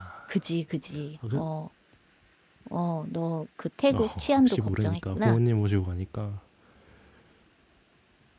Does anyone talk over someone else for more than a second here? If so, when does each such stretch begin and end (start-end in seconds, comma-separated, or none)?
3.9-5.4